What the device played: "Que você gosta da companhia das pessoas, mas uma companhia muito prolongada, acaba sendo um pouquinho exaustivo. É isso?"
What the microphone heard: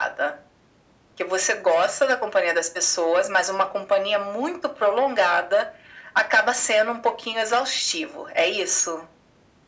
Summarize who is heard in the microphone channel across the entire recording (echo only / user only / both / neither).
echo only